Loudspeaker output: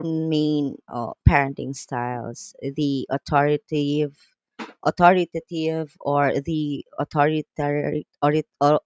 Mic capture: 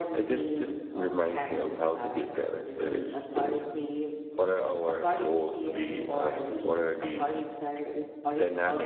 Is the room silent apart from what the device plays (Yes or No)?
No